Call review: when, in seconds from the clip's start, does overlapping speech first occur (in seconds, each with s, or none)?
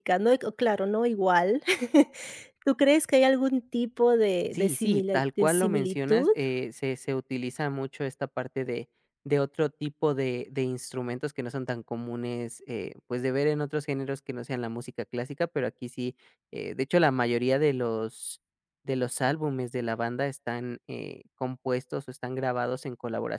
4.5 s